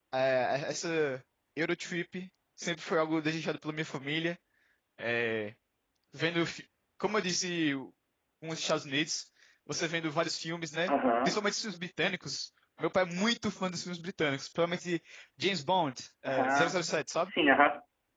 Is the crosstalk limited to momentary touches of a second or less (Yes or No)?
Yes